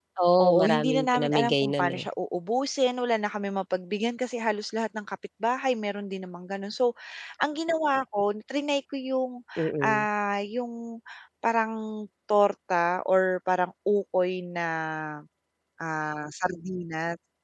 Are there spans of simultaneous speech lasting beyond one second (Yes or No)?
Yes